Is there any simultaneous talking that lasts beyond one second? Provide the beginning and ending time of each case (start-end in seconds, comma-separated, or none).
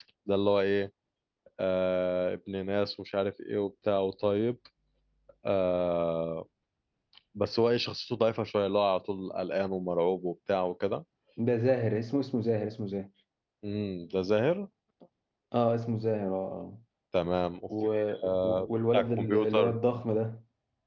18.4-19.8